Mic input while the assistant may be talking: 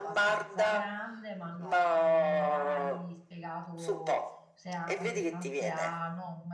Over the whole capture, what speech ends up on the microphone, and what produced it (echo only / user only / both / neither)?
both